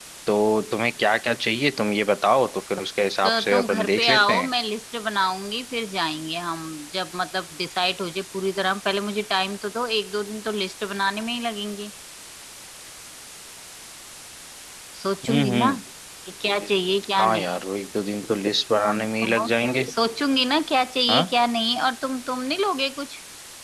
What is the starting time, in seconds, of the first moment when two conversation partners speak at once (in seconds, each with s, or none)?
3.2 s